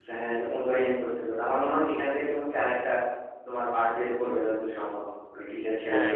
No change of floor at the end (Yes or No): No